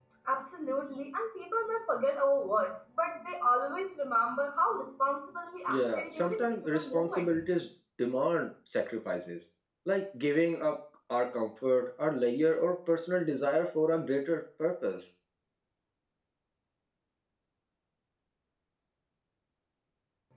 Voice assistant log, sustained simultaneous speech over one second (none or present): present